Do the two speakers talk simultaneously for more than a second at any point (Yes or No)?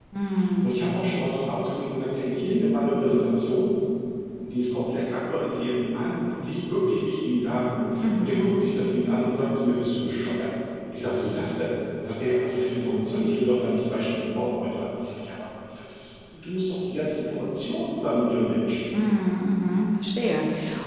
No